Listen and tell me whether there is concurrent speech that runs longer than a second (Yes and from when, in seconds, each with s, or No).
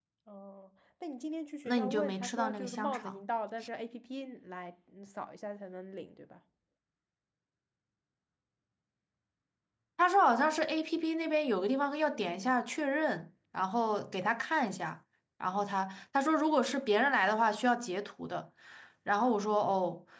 Yes, from 1.6 s